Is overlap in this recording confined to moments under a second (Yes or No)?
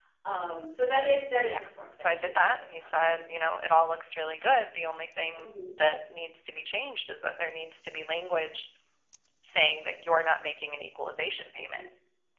No